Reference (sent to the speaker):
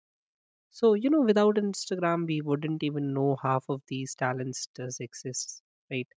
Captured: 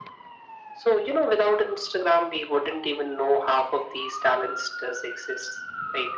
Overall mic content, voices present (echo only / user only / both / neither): echo only